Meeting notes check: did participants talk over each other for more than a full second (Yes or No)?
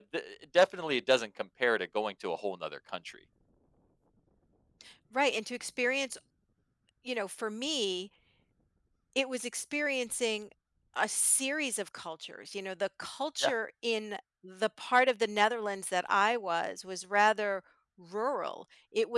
No